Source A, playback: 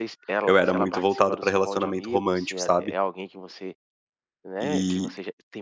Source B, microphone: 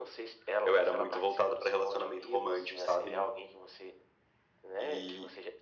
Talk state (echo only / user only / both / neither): both